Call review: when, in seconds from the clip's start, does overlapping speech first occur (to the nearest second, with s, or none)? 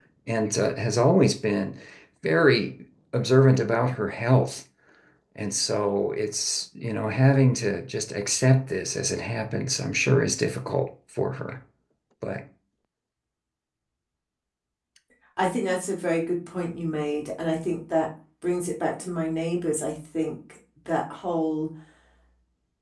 none